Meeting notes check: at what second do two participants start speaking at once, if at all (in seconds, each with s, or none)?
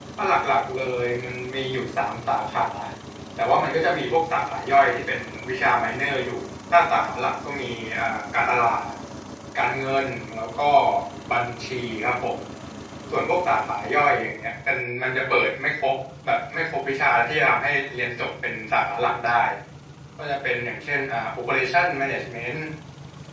none